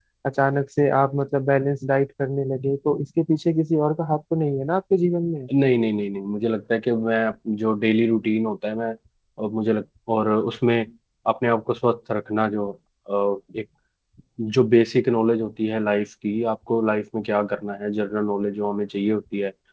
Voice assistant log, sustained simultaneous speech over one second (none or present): none